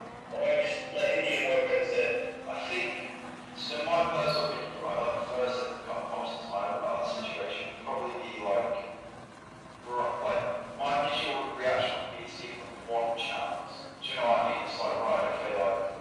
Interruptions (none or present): none